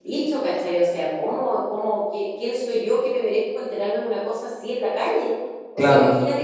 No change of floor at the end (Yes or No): Yes